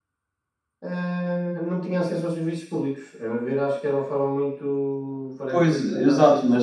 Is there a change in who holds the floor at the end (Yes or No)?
Yes